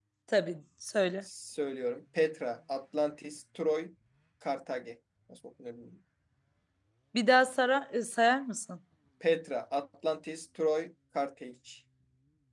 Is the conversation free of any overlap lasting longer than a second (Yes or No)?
Yes